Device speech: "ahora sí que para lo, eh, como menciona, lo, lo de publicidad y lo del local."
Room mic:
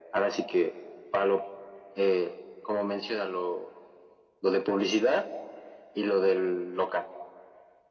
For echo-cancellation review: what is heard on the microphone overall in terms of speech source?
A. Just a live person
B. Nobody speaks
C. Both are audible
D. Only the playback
D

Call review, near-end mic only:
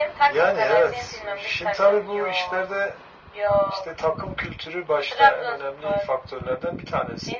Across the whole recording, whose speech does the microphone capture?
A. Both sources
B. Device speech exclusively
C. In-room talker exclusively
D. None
B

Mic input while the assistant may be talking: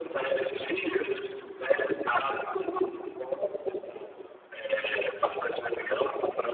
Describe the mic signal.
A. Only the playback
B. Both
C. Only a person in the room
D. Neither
B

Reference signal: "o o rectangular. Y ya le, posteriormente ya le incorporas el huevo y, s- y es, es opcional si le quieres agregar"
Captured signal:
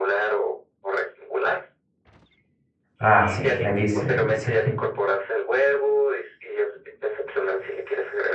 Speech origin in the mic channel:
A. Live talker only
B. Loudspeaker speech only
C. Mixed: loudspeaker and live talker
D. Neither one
C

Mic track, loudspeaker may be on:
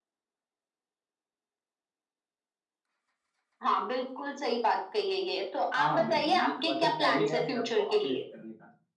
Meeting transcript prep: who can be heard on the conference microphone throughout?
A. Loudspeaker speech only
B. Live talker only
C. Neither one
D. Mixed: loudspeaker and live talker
D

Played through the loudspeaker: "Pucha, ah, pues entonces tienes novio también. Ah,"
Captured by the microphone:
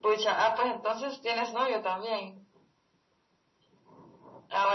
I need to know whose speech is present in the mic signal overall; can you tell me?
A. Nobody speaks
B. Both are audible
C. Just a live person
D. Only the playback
D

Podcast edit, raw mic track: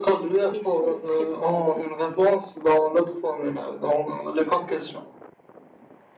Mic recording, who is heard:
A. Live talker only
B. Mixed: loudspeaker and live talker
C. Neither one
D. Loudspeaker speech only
B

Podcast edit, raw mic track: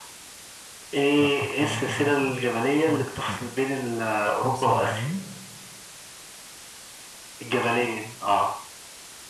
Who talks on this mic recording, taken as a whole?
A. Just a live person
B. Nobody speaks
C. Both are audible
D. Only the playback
C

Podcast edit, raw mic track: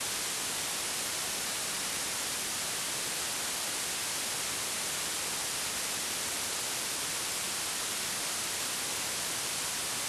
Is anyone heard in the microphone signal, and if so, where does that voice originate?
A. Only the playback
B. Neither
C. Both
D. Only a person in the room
B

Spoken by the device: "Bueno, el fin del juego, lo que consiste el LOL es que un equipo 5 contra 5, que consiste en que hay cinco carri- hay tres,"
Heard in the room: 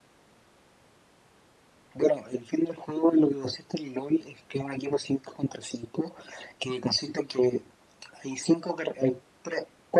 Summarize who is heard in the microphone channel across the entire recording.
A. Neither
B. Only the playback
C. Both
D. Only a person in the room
B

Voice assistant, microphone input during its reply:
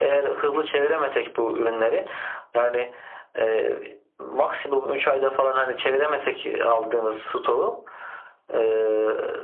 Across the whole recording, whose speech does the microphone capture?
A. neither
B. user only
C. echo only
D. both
C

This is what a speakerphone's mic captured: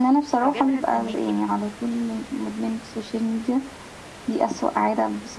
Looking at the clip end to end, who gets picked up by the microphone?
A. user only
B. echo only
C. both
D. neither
C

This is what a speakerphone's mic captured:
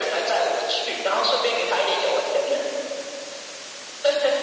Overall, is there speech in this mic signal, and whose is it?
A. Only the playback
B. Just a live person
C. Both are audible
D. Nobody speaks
A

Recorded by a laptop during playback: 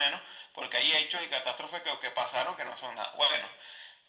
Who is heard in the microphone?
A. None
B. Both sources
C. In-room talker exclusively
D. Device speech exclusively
D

